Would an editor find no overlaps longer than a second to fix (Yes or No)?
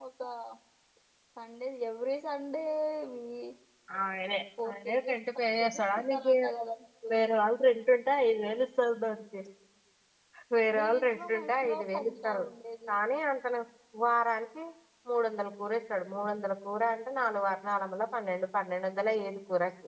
No